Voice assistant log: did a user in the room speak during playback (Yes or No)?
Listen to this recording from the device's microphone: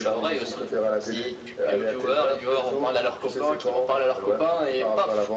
No